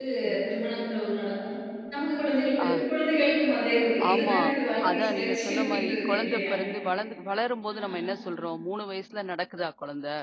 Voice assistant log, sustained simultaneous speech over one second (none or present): present